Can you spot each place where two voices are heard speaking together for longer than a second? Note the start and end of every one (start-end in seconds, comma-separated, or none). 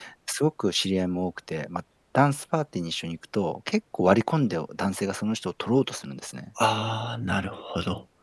none